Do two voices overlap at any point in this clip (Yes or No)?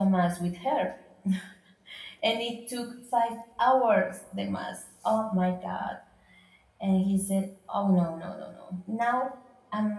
No